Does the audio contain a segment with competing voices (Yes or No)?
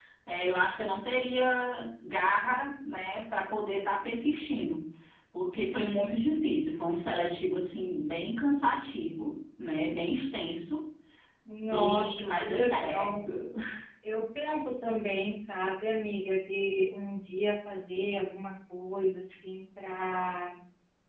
Yes